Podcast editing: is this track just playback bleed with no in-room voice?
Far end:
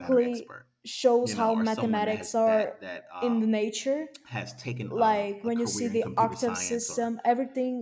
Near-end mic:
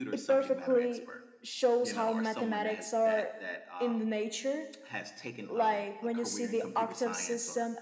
Yes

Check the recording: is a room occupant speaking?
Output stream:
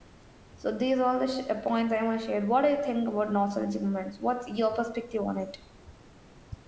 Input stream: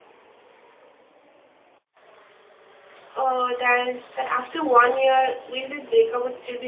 Yes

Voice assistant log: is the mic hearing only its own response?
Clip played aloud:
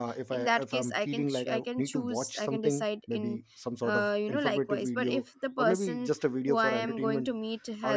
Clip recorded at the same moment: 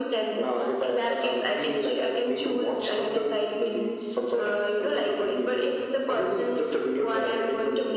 Yes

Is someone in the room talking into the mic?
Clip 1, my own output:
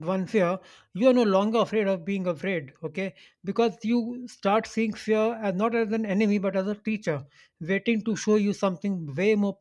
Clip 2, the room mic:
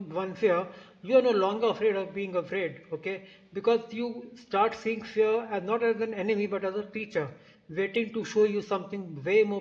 No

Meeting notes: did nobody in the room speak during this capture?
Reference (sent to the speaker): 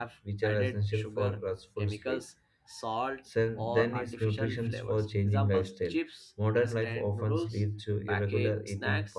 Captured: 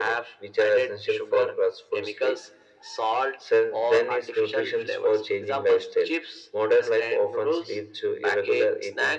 Yes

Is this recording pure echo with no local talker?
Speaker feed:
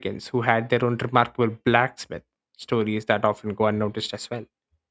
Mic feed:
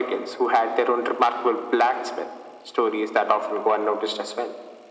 Yes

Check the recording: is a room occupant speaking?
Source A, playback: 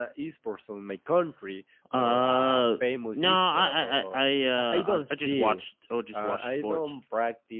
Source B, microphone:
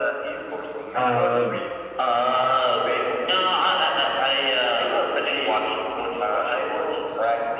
Yes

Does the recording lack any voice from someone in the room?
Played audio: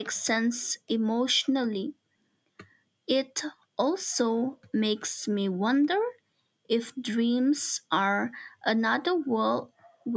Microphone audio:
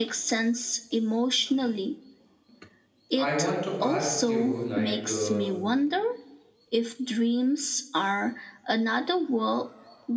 No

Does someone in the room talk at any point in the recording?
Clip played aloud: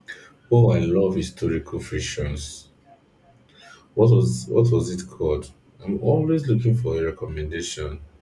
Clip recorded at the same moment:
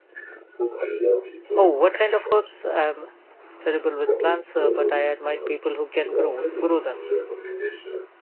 Yes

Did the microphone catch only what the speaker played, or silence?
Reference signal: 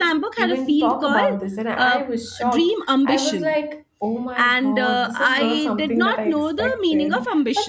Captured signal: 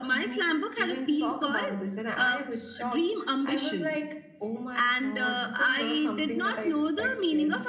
Yes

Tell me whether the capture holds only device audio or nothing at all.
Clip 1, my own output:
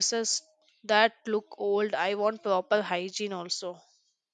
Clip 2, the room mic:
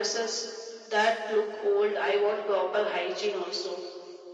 Yes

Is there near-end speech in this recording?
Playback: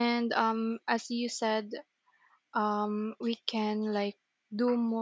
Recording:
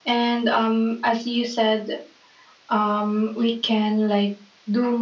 No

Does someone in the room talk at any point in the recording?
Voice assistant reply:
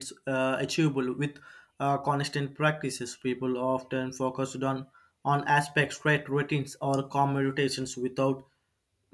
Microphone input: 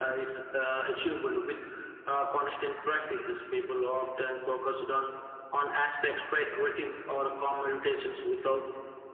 No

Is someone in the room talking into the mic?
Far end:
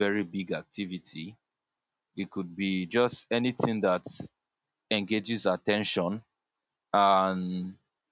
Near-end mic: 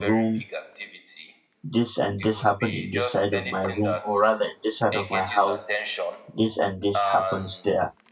Yes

